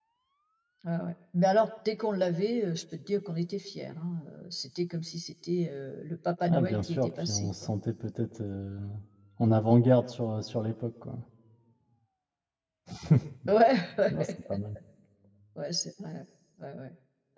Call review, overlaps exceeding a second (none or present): present